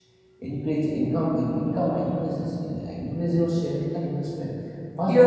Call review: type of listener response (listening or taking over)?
listening